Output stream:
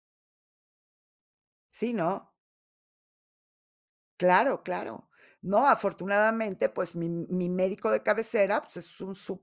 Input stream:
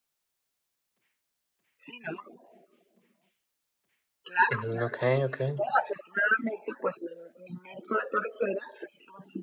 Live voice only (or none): Ujú, okey, okey.